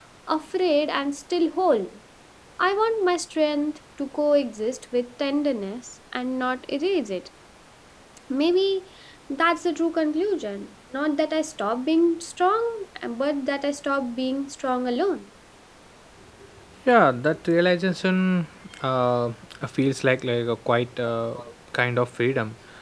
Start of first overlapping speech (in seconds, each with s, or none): none